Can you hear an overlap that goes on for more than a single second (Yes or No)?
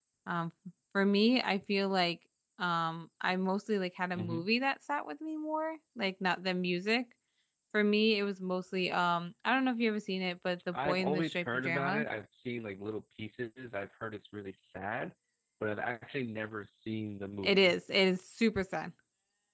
Yes